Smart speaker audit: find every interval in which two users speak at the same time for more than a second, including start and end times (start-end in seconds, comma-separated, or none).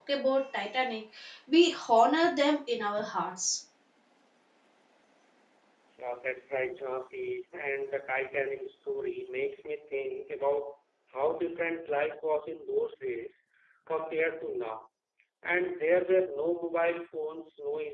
none